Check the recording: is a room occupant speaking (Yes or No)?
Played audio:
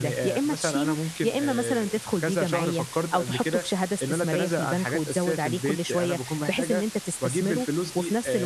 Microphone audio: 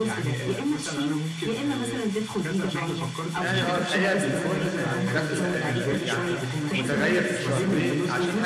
Yes